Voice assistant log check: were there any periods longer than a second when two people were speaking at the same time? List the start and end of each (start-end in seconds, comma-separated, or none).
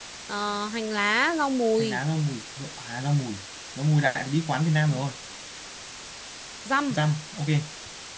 none